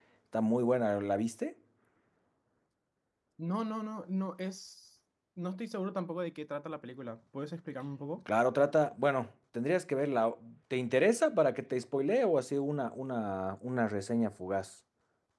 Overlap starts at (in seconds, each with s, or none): none